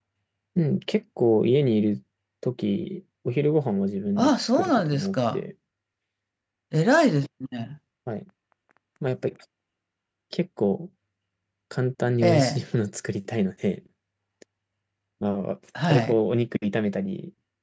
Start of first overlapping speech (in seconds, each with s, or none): 4.2 s